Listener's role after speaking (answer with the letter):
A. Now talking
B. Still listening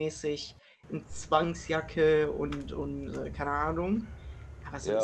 A